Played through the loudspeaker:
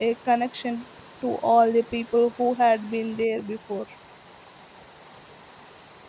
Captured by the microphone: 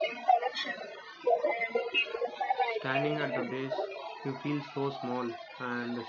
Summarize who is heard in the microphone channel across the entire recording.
both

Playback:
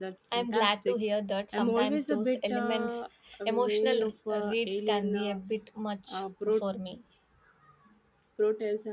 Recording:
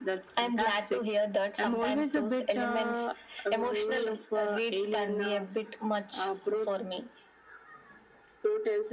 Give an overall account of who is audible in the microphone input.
echo only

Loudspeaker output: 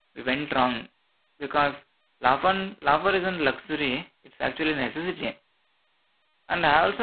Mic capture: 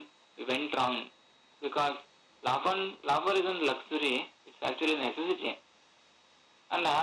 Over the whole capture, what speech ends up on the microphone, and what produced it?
echo only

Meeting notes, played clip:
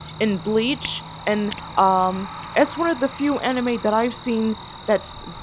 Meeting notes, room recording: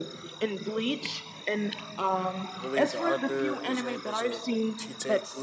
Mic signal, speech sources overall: both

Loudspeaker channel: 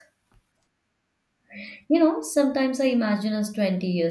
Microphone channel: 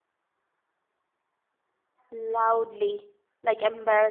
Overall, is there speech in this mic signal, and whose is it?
user only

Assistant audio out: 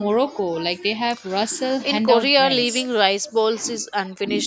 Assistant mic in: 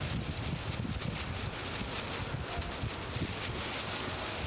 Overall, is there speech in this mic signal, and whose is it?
neither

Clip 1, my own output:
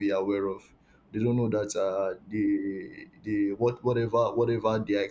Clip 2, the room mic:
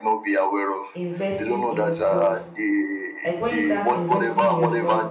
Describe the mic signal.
both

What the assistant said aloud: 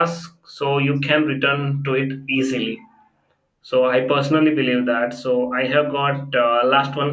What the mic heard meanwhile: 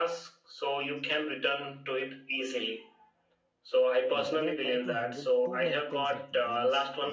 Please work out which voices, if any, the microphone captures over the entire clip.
both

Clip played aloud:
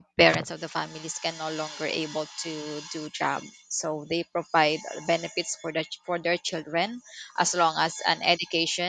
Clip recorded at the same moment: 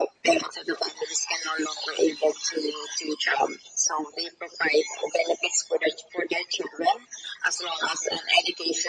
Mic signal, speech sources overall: echo only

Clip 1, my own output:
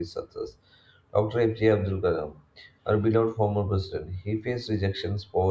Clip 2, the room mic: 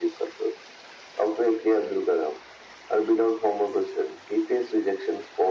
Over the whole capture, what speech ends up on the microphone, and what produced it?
echo only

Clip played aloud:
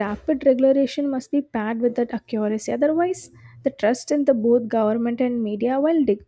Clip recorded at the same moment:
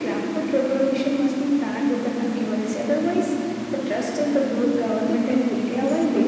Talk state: both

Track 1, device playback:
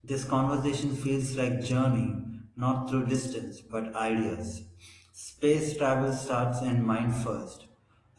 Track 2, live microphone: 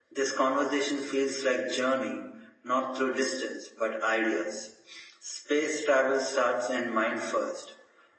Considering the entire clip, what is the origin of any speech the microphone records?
echo only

